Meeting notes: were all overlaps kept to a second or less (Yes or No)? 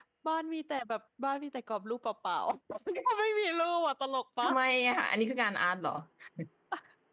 Yes